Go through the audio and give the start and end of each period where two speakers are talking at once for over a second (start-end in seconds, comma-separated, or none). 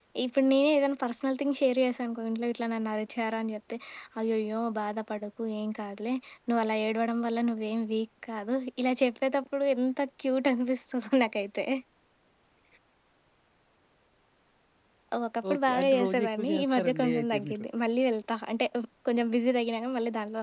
15.5-17.6